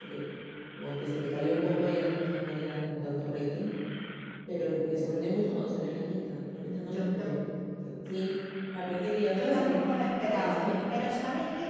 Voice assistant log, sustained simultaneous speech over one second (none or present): present